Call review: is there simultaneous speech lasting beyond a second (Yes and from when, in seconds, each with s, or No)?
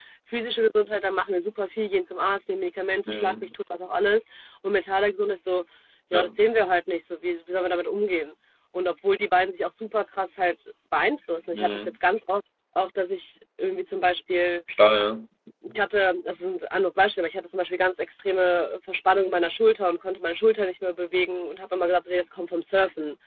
No